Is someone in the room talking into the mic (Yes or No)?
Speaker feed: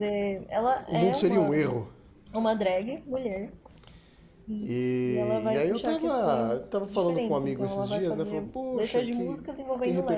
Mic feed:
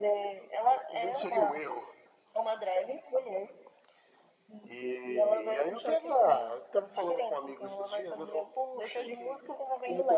No